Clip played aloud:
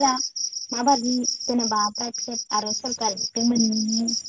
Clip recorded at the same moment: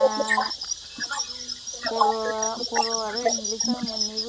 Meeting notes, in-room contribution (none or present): present